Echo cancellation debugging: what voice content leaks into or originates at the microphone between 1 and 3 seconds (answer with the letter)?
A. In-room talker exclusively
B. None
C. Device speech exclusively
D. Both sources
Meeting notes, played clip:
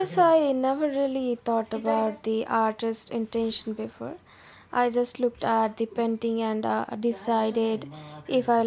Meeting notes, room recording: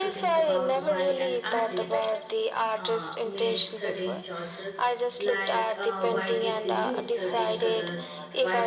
D